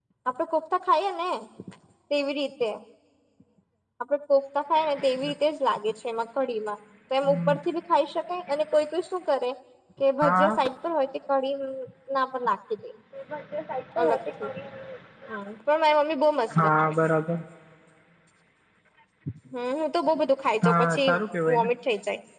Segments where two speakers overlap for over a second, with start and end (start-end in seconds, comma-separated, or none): none